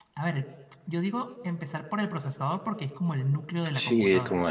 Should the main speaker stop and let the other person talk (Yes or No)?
Yes